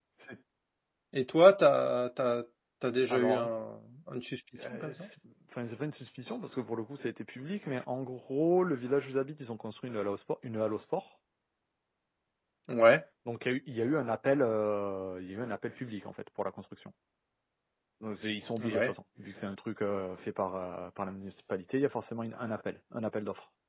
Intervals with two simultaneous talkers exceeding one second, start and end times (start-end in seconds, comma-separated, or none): none